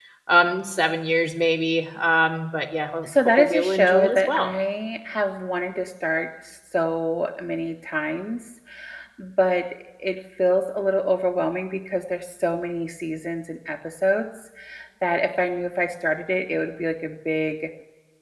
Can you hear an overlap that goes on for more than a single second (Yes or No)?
Yes